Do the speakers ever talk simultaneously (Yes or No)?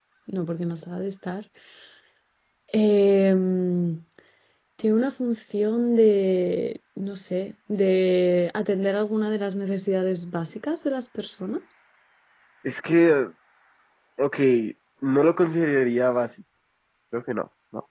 No